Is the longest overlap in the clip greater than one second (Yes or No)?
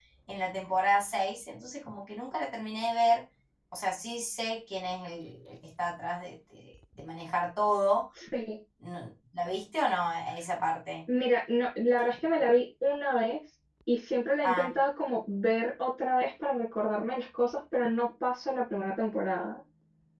No